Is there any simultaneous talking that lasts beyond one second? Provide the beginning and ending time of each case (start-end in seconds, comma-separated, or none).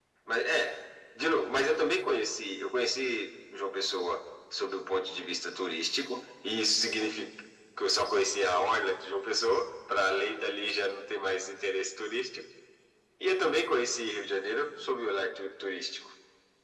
none